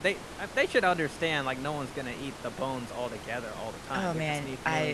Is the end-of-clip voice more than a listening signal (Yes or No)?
Yes